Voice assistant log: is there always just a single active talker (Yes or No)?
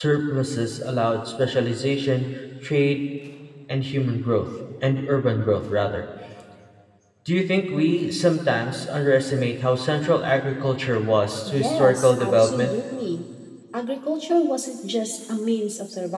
No